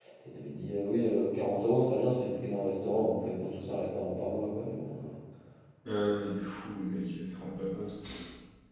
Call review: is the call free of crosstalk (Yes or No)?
Yes